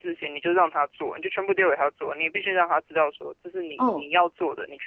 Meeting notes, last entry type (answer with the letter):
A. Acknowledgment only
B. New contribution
A